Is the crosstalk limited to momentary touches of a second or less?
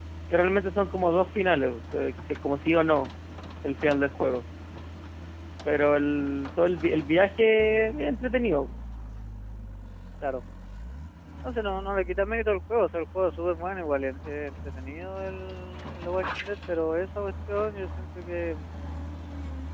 Yes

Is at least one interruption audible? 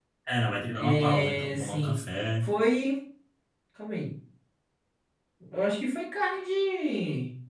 Yes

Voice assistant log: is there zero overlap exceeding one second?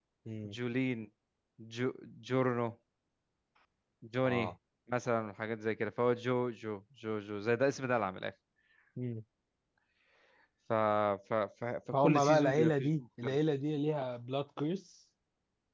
No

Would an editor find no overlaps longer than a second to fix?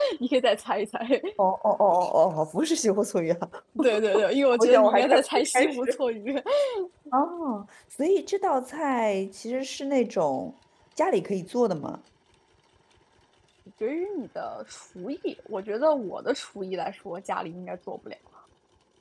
No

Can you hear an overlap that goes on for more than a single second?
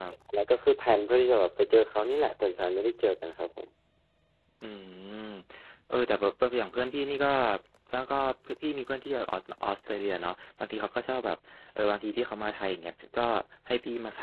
No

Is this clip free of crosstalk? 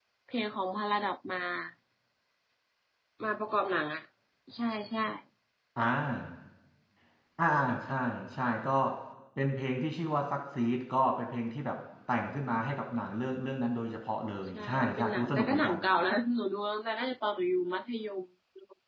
No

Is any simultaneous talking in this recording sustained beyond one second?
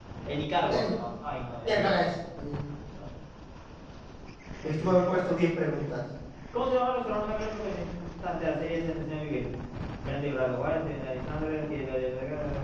No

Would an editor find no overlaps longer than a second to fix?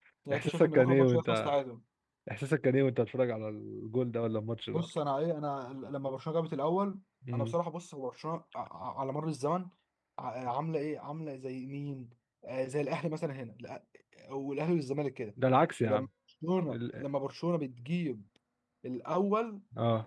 No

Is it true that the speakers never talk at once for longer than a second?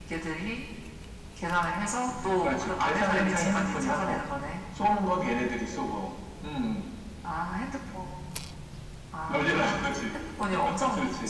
No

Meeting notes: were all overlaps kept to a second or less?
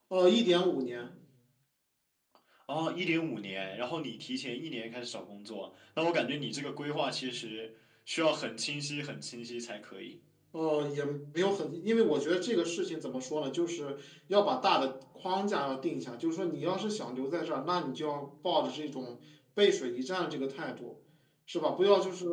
Yes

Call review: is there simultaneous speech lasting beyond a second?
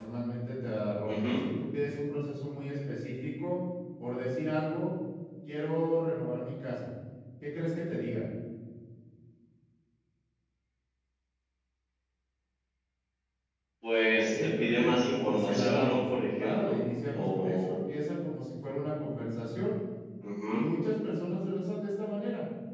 Yes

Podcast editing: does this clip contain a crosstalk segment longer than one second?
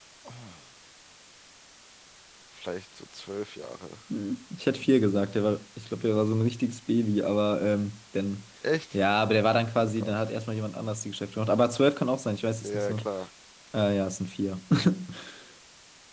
No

